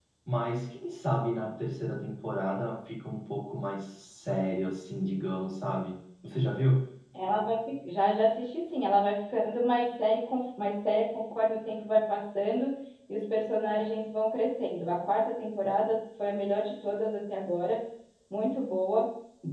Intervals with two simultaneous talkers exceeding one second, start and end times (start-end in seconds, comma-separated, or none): none